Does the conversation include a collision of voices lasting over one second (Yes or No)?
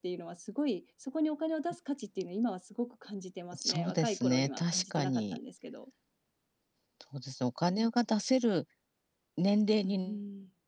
Yes